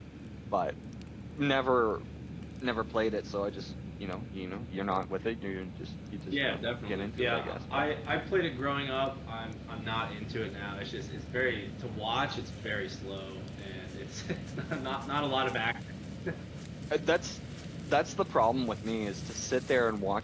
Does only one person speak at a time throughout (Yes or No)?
No